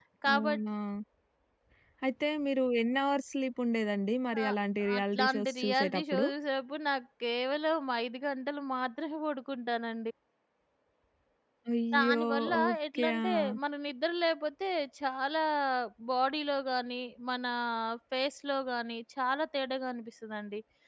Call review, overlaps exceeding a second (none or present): present